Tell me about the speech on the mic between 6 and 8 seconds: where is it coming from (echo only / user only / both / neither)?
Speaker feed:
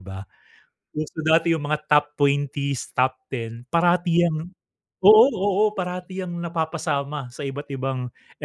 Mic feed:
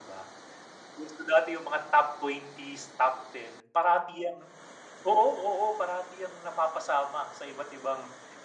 echo only